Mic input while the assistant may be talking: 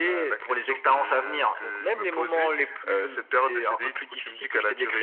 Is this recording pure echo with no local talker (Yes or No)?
Yes